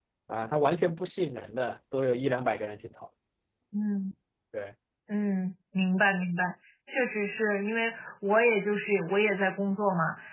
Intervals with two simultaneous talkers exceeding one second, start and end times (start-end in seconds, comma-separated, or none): none